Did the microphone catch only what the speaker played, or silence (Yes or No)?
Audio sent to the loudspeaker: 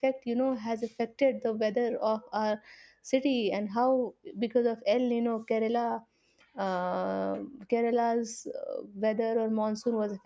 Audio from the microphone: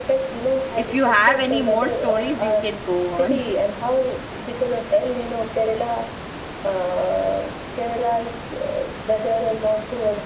No